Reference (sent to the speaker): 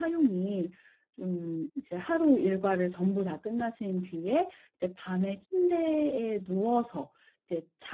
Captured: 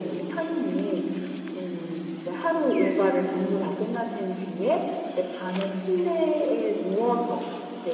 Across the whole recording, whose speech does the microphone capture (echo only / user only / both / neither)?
echo only